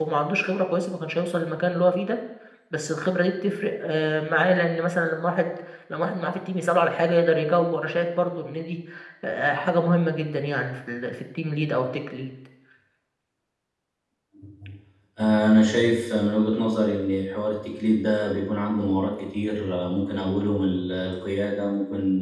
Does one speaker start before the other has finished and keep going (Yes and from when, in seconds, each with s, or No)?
No